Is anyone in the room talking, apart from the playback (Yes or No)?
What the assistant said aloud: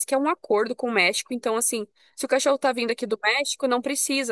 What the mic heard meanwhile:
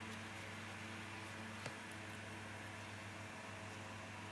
No